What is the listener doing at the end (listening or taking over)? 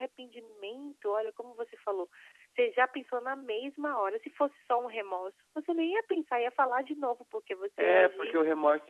taking over